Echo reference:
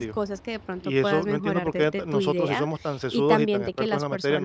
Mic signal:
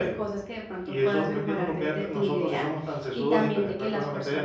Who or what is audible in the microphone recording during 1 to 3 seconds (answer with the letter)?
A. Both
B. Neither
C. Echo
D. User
C